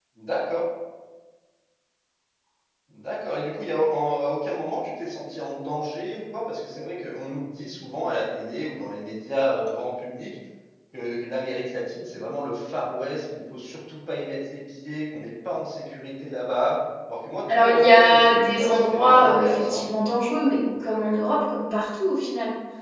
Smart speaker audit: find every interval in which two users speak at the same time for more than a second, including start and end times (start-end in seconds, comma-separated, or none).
17.5-19.8